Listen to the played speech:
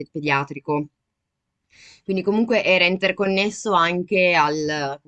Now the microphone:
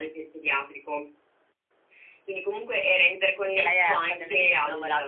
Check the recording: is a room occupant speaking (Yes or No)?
Yes